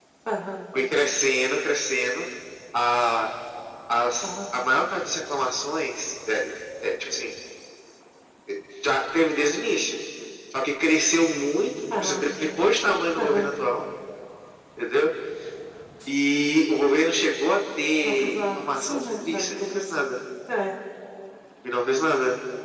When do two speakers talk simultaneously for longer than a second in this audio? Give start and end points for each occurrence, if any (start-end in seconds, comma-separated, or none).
18.0-19.8